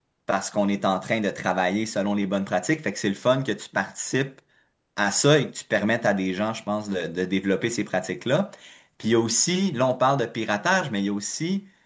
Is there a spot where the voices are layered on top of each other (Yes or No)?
No